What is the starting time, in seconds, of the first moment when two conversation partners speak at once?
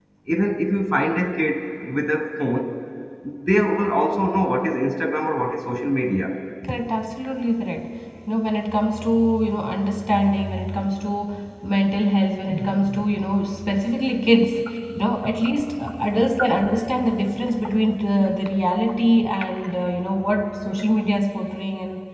none

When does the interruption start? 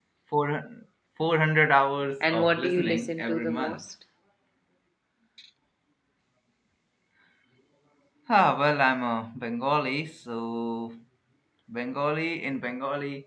2 s

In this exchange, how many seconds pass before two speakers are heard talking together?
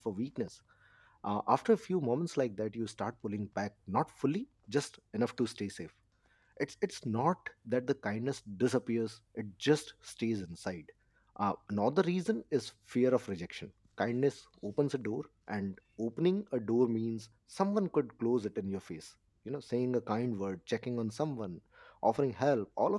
none

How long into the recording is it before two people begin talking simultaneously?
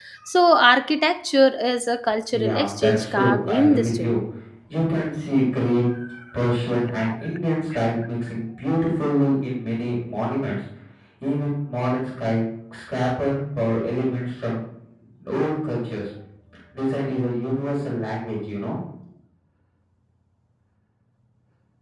2 s

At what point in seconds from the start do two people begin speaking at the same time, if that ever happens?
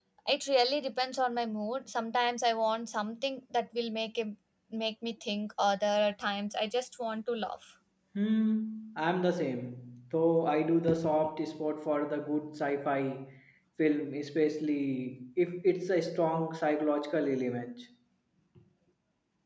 none

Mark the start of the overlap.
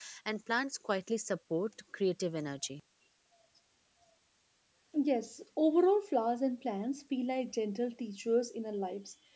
none

